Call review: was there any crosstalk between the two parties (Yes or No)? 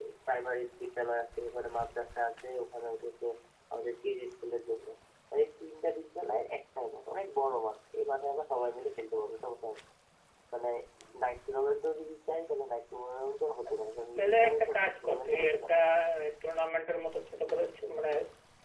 Yes